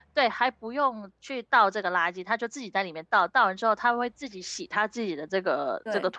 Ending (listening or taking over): taking over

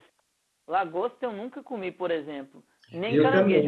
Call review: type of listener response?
listening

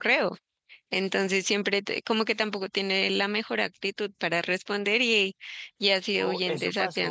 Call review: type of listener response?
taking over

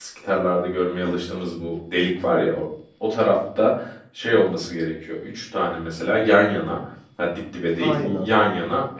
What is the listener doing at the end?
listening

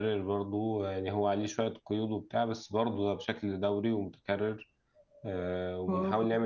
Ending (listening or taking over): listening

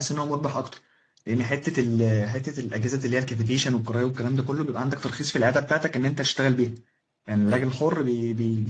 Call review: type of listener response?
listening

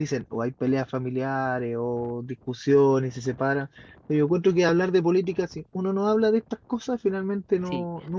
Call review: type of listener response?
listening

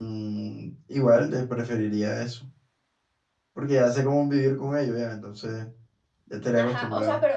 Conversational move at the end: taking over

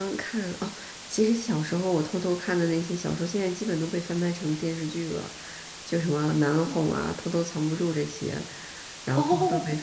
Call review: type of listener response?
listening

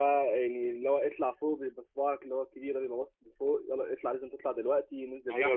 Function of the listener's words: taking over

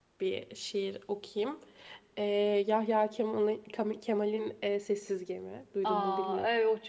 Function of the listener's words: taking over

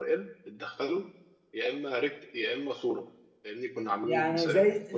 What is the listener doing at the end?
taking over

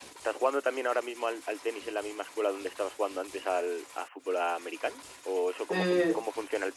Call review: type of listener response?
listening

